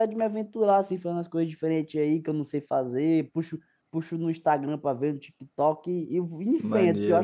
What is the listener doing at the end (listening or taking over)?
taking over